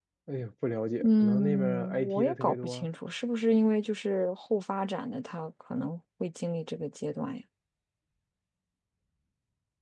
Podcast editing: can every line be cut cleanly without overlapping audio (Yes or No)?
No